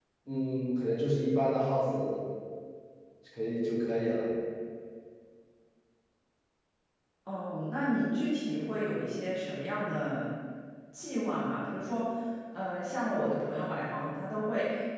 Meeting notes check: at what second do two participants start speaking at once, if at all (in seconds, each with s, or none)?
none